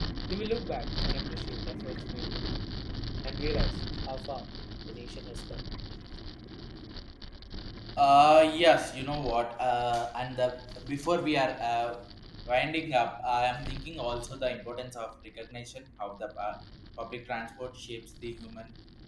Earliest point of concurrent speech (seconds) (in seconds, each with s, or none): none